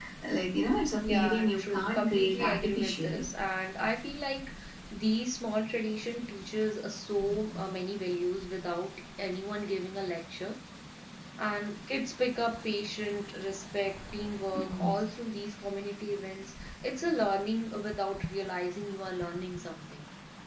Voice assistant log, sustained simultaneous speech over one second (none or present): present